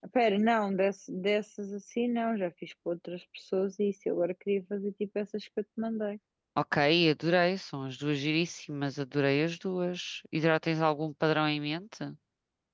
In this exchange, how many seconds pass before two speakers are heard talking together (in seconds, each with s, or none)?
none